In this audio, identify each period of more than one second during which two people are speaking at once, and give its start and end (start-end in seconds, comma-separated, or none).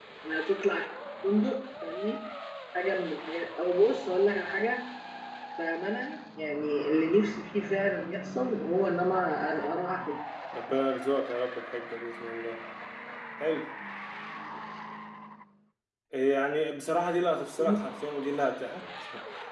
none